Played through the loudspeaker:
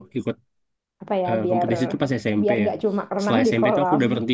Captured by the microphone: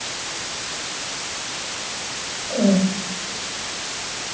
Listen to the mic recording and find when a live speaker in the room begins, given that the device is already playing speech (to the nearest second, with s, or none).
2 s